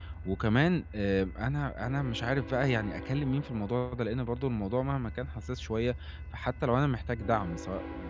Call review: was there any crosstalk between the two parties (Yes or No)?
No